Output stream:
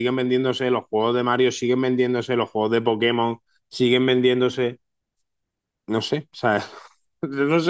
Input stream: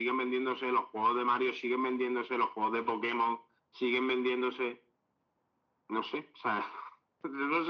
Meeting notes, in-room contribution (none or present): none